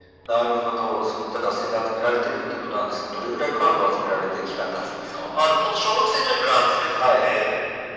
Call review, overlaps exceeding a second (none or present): none